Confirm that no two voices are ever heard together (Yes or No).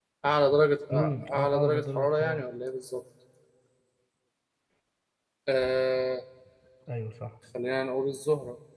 No